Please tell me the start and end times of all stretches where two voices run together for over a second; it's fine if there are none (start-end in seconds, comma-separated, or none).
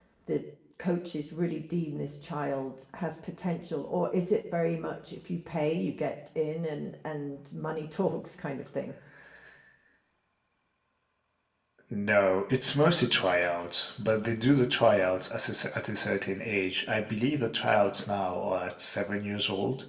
none